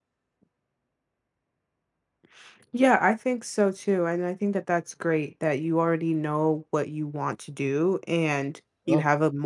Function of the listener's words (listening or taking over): listening